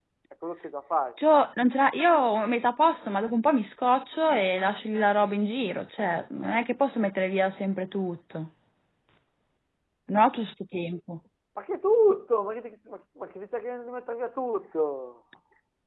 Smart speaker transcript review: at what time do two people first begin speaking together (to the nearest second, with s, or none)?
none